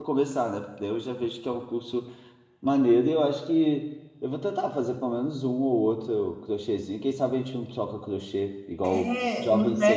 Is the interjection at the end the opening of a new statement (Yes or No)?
Yes